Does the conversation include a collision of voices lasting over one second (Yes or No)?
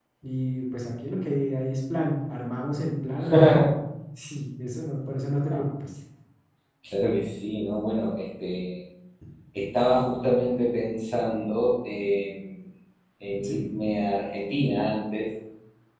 No